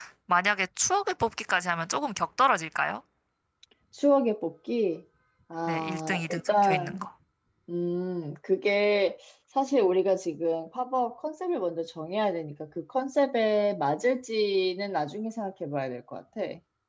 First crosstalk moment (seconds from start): 5.7 s

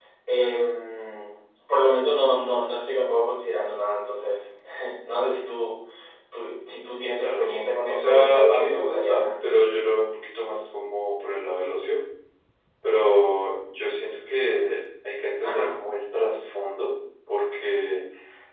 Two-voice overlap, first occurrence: 7.2 s

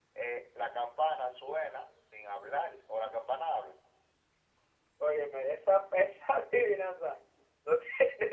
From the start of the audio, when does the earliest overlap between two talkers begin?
none

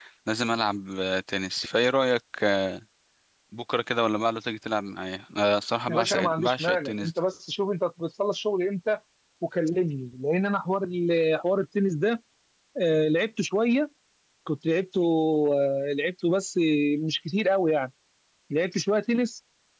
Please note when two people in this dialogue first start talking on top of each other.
5.9 s

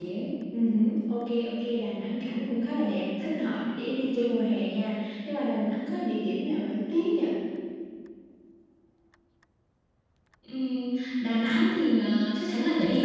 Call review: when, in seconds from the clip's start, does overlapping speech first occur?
none

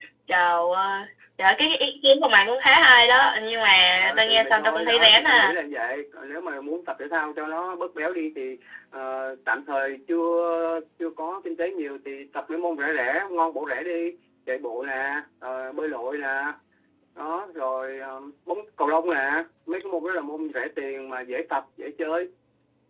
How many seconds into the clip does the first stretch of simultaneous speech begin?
4.2 s

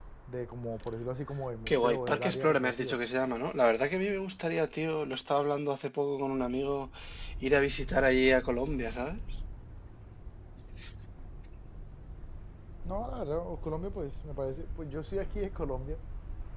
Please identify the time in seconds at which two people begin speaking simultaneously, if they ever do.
1.7 s

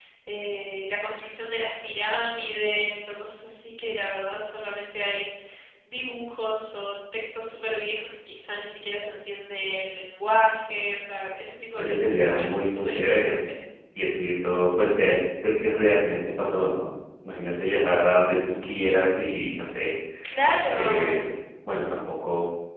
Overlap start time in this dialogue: 11.7 s

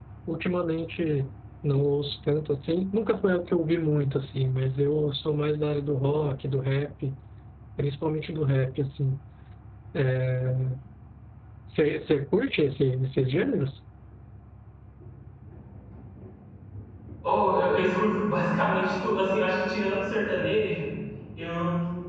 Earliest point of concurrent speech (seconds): none

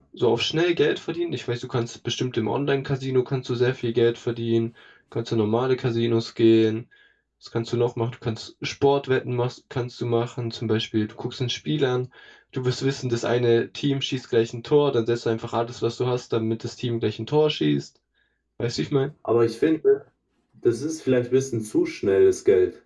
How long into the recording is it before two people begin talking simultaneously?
none

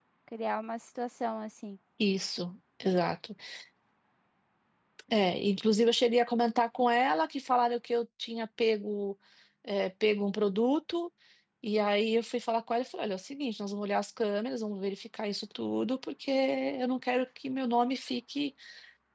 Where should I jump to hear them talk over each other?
none

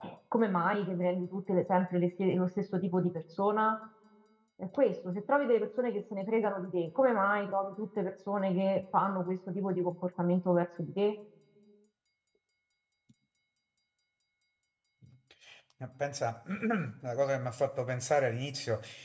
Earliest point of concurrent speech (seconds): none

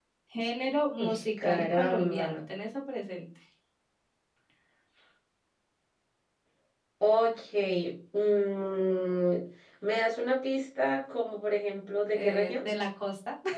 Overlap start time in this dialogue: 1.0 s

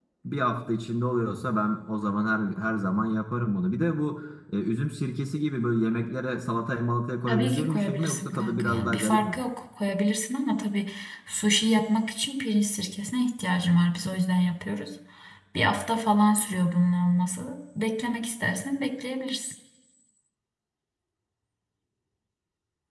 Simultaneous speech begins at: 7.3 s

